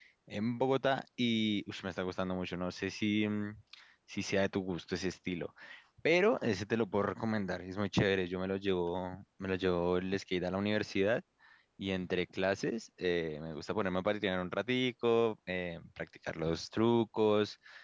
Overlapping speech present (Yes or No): No